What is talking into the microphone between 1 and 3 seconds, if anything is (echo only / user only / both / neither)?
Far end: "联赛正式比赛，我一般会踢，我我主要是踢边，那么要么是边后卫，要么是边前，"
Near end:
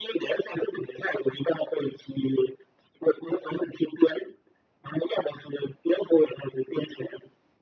echo only